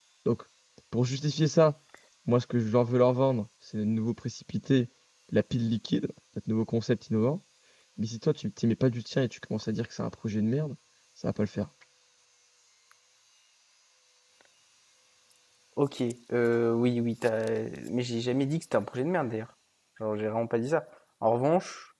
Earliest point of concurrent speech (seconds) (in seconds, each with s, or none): none